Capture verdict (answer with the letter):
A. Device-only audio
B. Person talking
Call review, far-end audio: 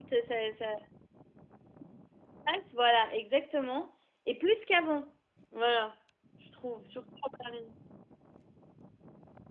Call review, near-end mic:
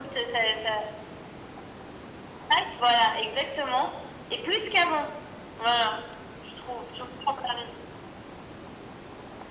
A